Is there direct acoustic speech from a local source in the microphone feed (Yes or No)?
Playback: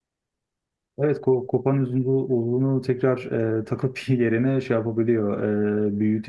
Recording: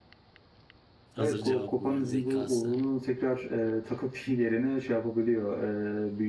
Yes